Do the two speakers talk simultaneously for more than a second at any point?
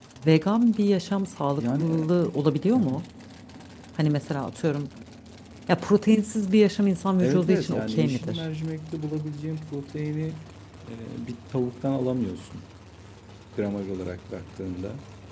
Yes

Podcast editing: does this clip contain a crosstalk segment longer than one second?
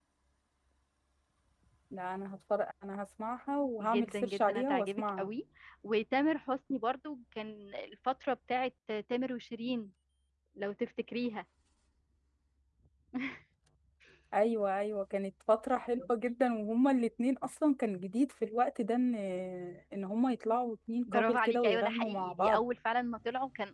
Yes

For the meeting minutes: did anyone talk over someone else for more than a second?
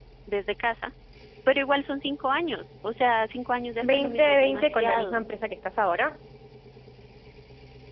Yes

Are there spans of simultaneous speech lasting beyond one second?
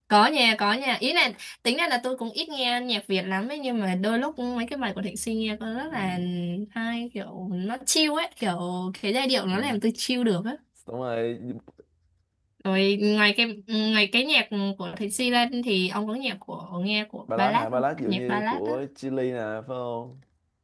Yes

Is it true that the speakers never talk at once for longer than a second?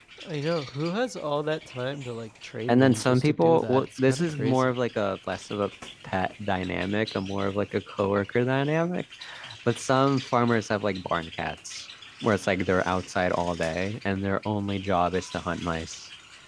No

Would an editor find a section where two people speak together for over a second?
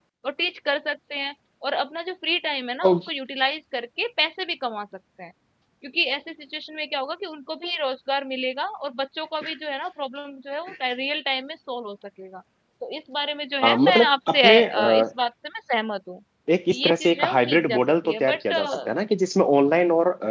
Yes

